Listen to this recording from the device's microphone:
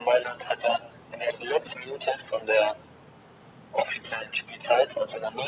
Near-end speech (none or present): none